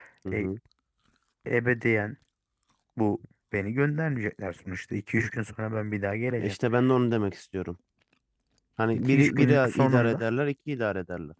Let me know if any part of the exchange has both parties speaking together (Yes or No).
Yes